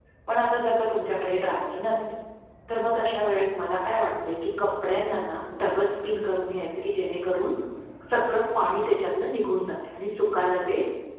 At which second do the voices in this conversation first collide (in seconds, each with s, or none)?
none